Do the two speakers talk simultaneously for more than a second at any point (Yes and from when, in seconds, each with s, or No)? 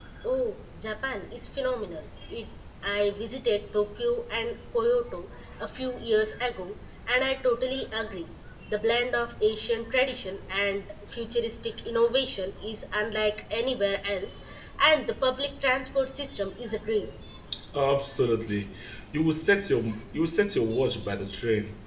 No